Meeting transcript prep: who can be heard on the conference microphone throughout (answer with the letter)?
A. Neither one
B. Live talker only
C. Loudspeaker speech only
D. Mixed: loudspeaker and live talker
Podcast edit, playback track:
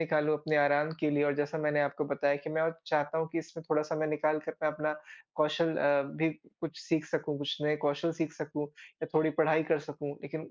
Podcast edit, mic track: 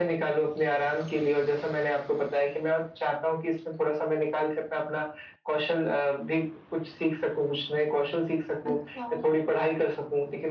D